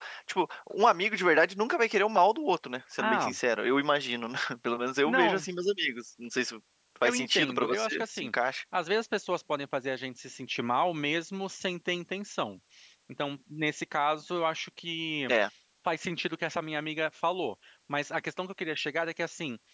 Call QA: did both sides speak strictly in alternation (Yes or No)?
No